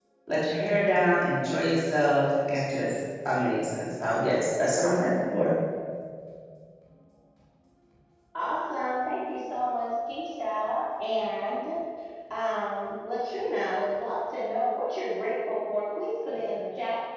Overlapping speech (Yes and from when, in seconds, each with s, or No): No